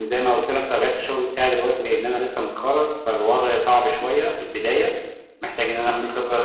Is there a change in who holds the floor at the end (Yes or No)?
No